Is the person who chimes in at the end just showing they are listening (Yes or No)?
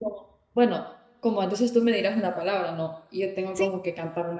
Yes